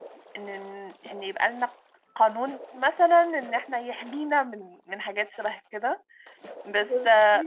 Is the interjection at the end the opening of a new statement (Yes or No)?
No